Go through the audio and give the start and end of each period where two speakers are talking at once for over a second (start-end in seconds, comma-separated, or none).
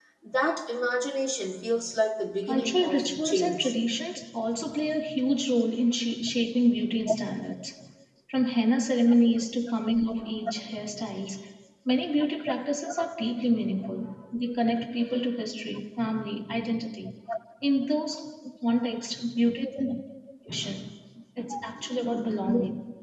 2.5-3.7